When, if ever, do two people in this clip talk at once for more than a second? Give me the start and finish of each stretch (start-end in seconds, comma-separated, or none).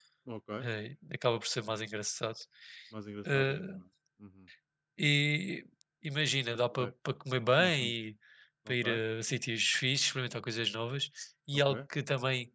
none